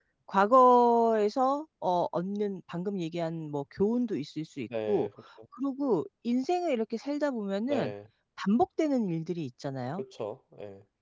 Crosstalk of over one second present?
No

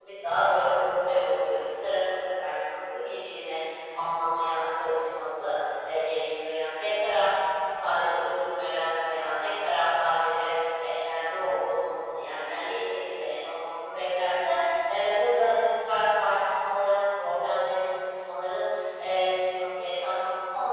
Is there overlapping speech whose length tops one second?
No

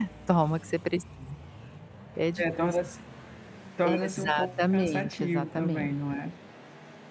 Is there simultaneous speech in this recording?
Yes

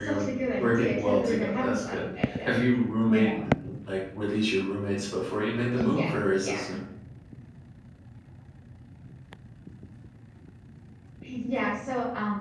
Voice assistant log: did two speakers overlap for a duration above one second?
Yes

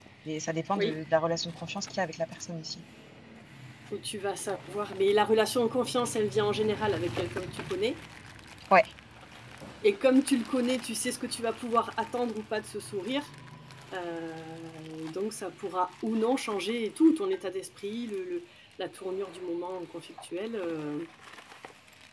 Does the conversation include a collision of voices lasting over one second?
No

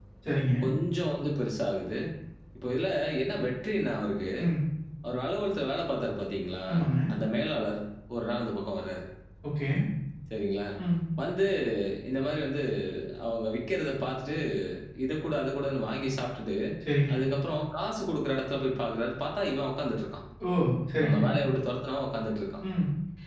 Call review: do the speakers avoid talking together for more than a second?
Yes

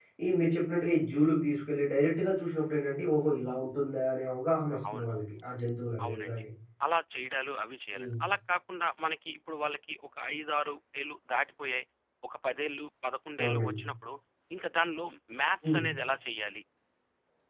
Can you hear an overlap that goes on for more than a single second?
No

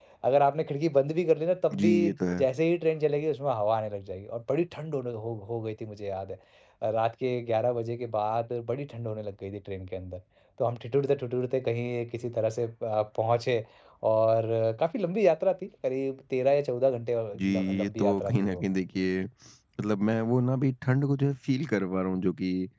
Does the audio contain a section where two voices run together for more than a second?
Yes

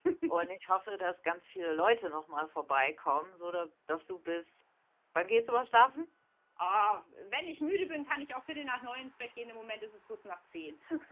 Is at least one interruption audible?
No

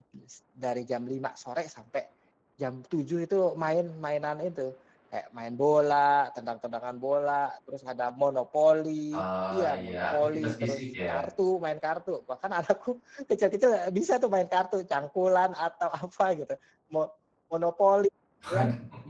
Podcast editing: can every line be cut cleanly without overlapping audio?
No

